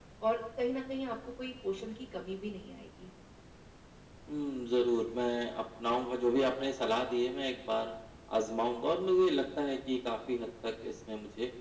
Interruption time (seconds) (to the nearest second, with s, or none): none